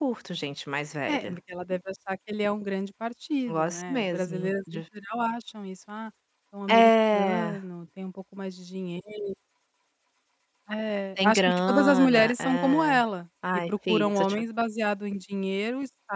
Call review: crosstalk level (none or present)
present